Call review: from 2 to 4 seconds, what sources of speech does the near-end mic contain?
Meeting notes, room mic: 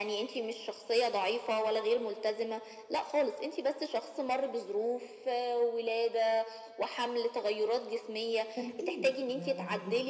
echo only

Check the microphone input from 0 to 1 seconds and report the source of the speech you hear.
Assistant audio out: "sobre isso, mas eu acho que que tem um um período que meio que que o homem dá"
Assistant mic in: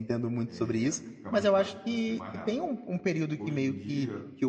both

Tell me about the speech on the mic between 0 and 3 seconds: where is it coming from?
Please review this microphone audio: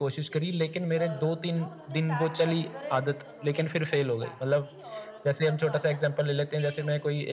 both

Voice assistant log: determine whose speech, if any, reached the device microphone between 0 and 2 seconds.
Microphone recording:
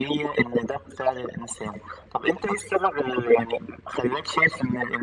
echo only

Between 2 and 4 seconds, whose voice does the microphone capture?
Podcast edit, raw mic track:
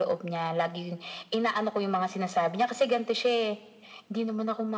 echo only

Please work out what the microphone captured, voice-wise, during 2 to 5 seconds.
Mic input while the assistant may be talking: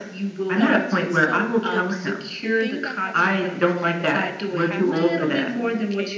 both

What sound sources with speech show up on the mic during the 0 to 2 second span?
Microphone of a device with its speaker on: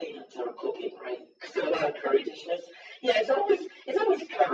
echo only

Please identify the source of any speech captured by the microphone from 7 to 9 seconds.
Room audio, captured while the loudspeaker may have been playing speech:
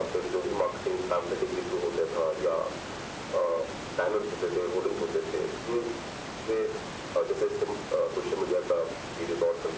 echo only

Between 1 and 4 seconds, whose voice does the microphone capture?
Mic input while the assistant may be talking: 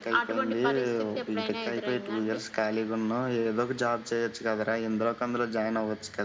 echo only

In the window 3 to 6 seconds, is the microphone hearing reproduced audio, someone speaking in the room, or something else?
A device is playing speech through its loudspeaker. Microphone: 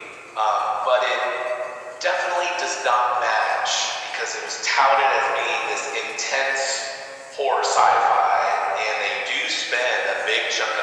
echo only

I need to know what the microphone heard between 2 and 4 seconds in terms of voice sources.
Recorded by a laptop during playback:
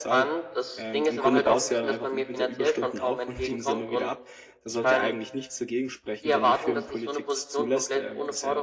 both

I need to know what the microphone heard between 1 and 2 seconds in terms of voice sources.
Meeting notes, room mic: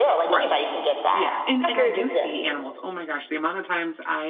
both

